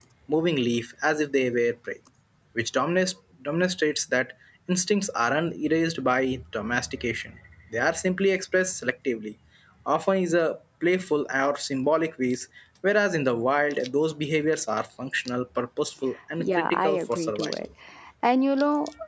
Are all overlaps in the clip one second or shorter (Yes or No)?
No